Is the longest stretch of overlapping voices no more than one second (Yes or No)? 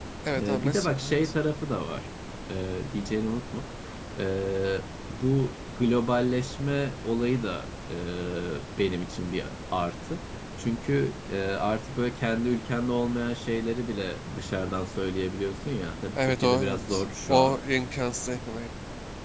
No